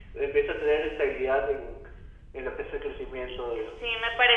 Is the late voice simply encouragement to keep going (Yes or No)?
No